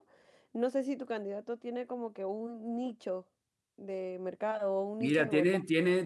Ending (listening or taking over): taking over